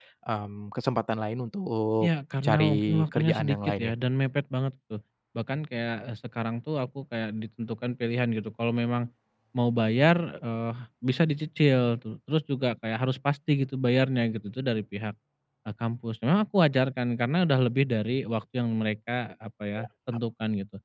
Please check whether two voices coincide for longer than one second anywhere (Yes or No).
Yes